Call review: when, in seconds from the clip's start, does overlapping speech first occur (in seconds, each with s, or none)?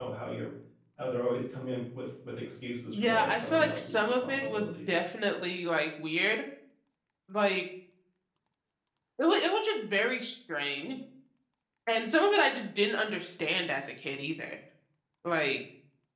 2.9 s